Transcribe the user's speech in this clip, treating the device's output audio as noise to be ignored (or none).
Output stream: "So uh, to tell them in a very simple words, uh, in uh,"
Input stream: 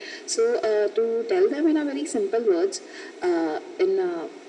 none